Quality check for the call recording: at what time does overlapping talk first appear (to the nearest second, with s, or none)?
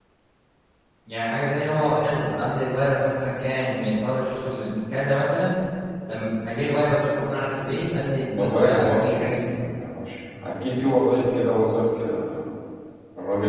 8 s